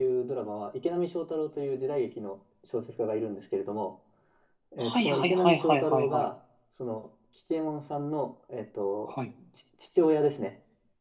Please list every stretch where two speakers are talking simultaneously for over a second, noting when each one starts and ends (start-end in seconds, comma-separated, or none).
4.8-6.2